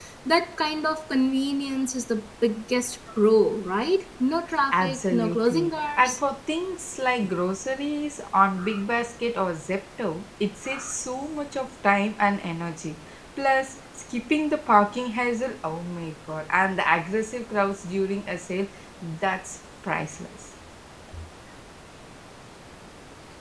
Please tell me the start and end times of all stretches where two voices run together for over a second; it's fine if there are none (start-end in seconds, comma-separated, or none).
4.7-6.2